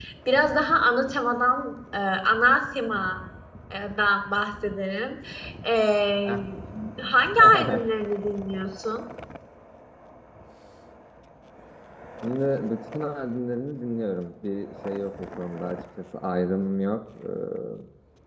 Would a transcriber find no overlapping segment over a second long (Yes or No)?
Yes